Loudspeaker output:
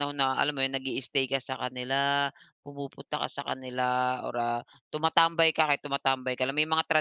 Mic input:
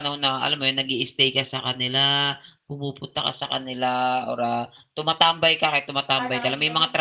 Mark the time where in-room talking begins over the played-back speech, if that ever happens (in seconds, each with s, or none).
6.1 s